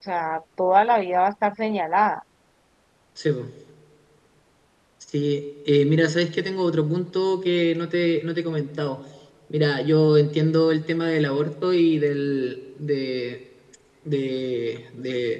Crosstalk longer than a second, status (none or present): none